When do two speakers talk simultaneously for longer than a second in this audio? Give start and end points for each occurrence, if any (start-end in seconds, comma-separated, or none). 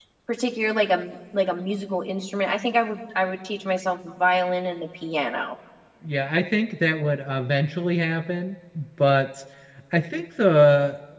none